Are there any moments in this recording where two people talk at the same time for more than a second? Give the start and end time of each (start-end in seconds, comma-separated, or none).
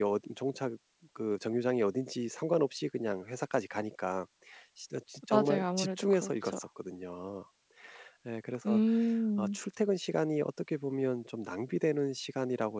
5.3-6.6